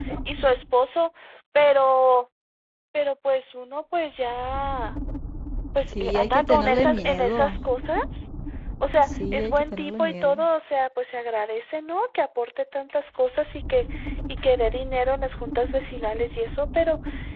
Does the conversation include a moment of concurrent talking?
Yes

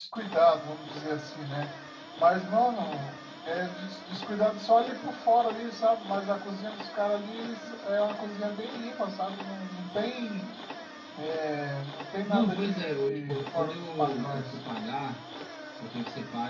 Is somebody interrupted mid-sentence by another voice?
Yes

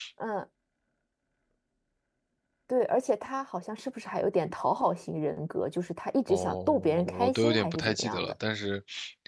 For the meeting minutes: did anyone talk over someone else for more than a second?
Yes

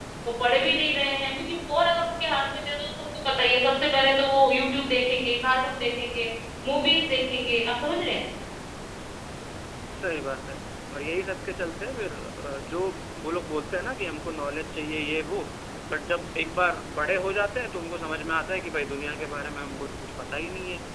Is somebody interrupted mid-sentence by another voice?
No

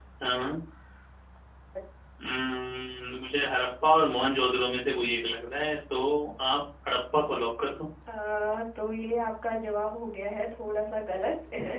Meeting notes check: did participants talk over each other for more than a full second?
No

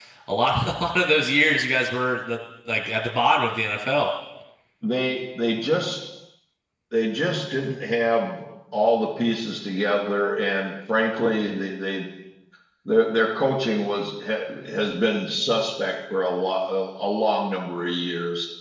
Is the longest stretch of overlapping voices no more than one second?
Yes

